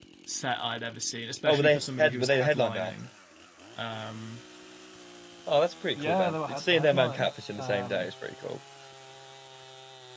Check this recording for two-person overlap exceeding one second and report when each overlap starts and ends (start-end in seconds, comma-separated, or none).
1.4-2.9, 6.0-8.1